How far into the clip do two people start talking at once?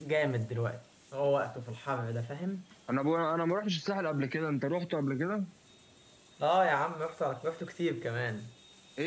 none

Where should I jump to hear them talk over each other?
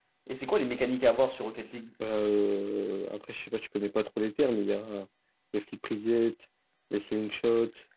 none

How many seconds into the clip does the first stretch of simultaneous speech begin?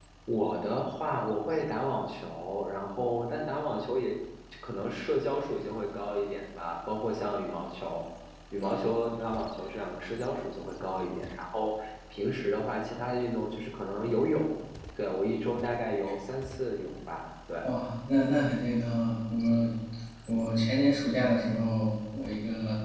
none

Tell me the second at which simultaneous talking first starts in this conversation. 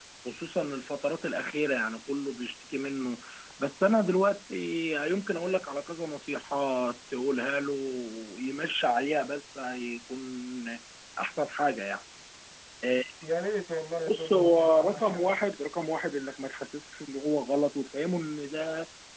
14 s

